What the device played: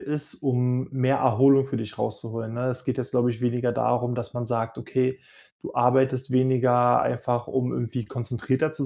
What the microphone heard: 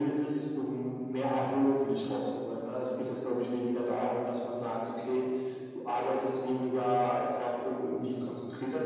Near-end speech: none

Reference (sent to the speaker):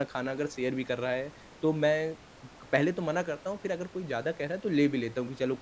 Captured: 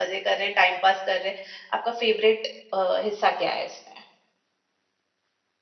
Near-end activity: present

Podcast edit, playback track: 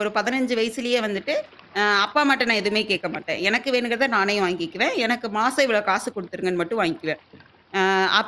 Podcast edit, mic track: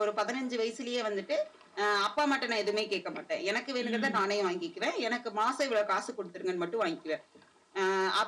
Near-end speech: present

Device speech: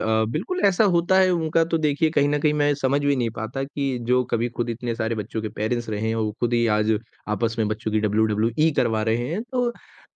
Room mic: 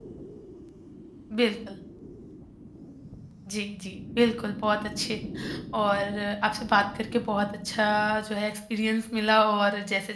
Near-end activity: present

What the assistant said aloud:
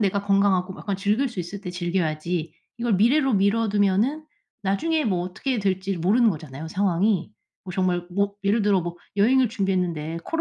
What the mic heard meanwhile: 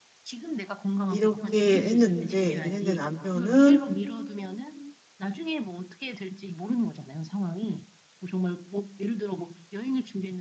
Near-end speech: present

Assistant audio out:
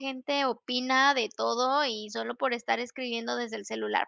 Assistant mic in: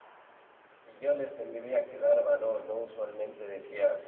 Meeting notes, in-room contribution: present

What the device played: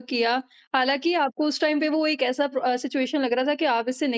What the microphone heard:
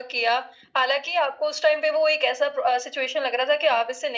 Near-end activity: none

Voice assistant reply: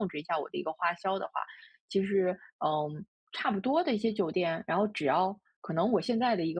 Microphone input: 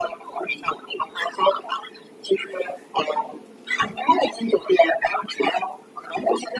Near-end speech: none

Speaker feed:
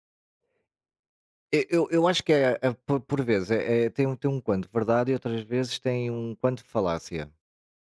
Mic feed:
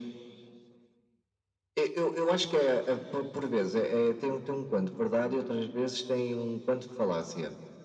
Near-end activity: none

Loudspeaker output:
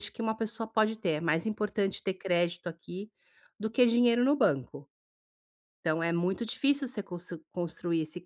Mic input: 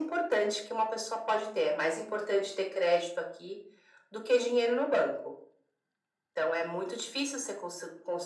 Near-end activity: none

